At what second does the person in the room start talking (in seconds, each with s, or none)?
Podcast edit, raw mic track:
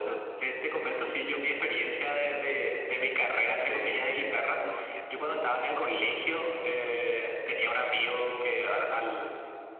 3.6 s